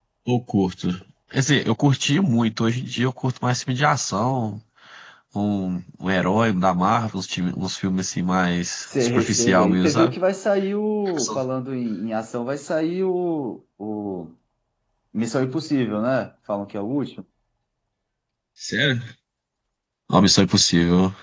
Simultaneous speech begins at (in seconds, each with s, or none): 8.8 s